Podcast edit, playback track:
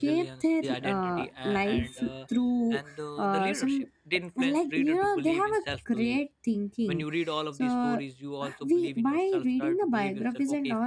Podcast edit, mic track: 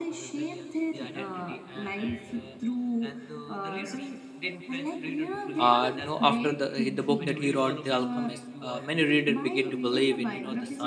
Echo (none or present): present